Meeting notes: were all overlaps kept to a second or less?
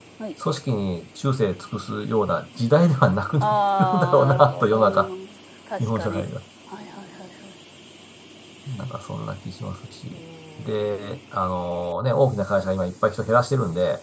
No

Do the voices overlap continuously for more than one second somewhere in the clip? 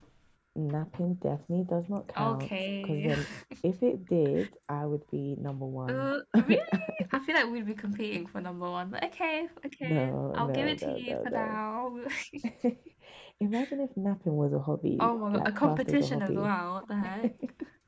Yes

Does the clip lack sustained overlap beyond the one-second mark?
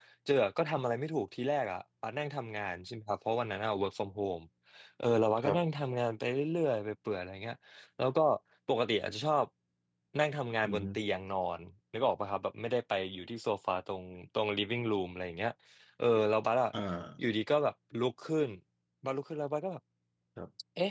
Yes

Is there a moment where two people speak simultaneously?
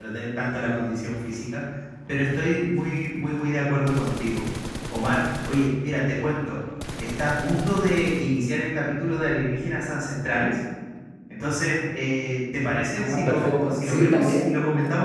Yes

